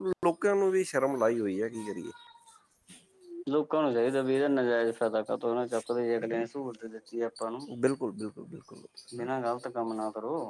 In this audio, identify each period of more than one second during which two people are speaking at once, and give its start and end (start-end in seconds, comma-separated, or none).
none